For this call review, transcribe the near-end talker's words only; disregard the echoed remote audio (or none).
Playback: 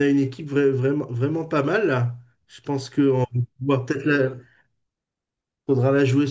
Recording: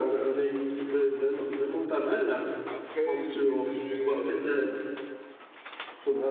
après, je mettrais euh,